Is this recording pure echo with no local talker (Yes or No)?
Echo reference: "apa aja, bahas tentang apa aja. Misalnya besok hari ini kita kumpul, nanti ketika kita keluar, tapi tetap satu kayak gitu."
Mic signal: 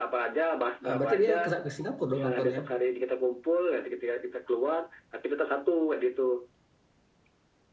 No